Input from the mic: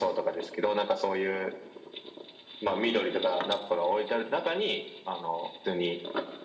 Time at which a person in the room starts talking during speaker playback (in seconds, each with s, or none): none